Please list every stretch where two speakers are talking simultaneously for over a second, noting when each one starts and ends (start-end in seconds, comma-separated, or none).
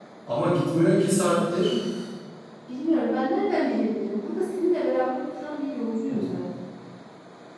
none